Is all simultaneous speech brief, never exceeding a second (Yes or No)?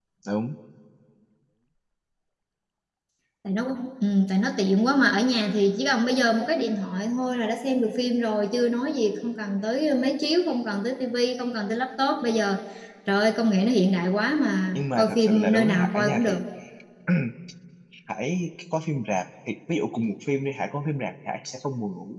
No